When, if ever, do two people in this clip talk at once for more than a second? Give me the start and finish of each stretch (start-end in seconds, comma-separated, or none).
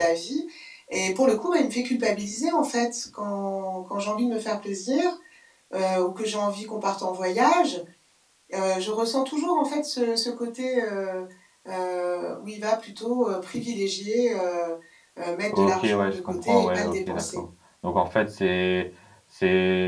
15.5-17.4